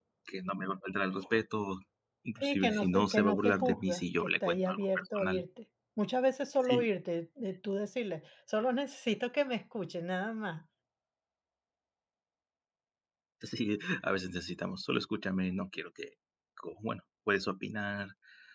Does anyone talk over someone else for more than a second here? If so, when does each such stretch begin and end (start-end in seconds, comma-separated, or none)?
2.4-5.4